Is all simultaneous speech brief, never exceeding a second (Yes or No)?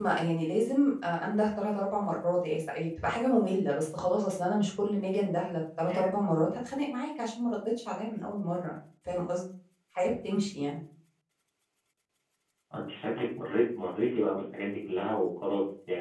Yes